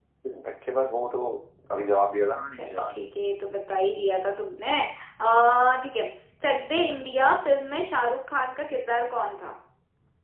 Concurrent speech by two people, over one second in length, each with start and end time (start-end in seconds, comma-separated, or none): none